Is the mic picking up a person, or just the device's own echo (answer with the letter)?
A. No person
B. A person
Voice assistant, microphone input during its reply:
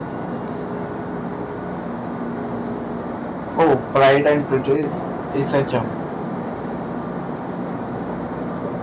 B